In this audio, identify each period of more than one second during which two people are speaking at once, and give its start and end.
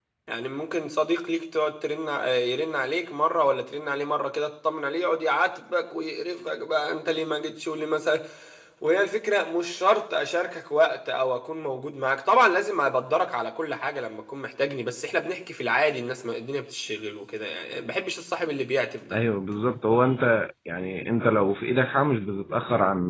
none

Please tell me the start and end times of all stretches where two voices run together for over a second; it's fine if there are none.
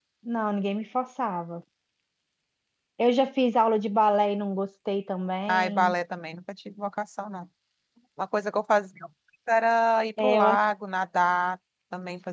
none

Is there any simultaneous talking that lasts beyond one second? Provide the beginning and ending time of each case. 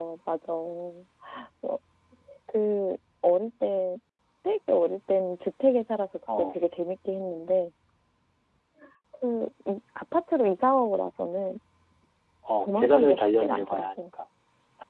12.6-13.9

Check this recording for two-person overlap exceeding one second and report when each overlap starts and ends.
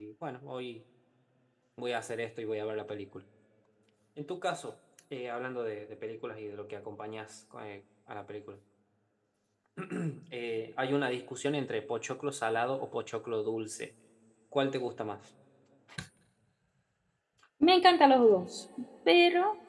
none

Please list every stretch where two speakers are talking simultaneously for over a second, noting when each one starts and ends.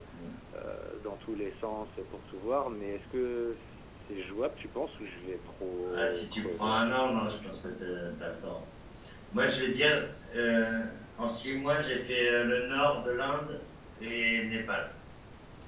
5.8-7.7

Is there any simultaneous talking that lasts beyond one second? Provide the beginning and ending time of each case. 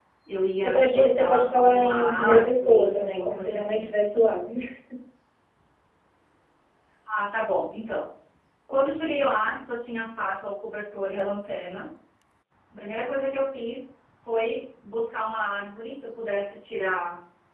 0.6-3.9

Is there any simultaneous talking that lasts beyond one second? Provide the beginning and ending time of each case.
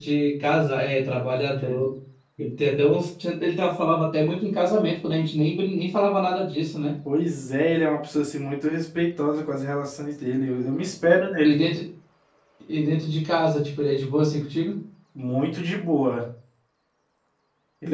none

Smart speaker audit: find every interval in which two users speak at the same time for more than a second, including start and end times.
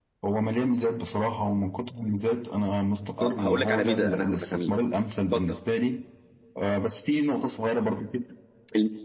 3.2-4.7

